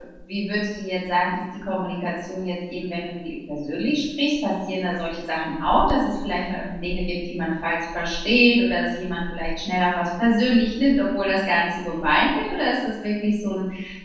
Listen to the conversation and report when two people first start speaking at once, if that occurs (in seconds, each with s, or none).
none